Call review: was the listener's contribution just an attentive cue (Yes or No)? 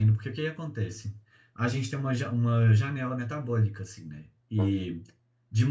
Yes